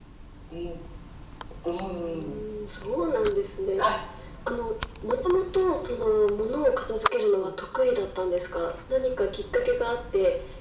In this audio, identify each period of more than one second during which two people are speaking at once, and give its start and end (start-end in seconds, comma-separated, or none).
none